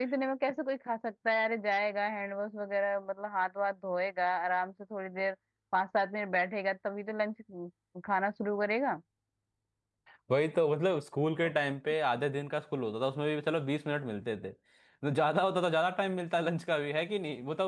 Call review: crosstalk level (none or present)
none